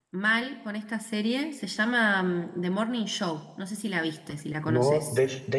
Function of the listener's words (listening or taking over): taking over